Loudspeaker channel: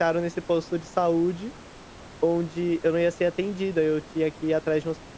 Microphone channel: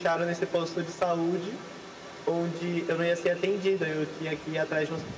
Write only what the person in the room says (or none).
none